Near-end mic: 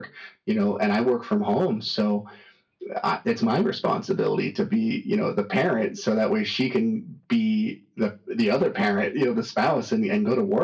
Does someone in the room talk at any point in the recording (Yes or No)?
No